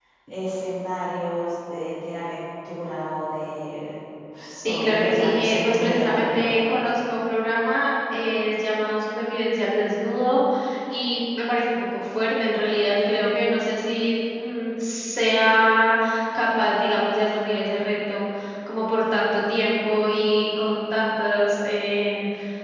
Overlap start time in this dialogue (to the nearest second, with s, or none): 5 s